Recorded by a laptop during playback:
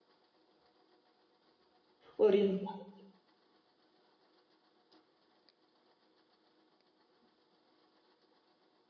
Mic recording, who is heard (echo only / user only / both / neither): user only